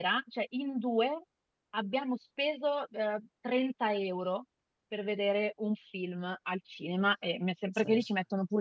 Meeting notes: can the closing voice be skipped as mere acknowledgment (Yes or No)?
Yes